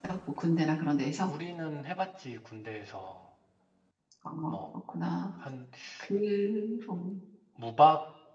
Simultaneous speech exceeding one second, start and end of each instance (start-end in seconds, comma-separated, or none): none